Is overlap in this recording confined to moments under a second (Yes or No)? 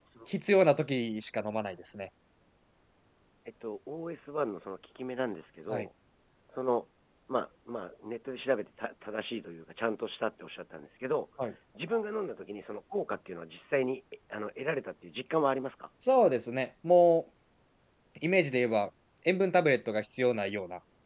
Yes